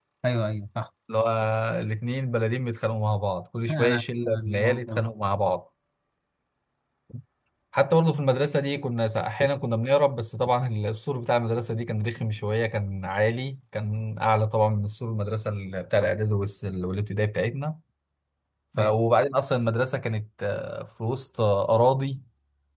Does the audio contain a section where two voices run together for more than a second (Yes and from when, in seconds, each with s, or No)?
Yes, from 3.7 s